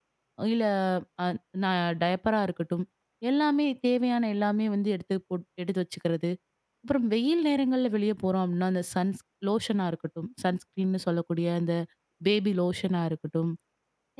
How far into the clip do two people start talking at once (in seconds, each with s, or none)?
none